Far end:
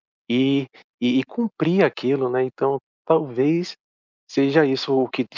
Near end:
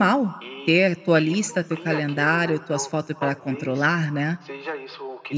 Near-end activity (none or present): present